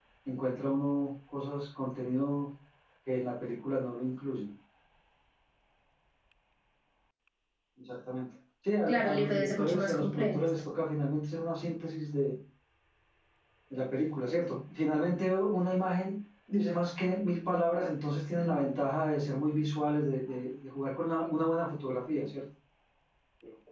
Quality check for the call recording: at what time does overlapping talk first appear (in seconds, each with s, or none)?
8.9 s